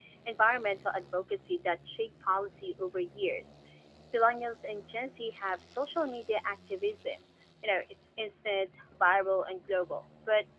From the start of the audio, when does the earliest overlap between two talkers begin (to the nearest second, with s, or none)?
none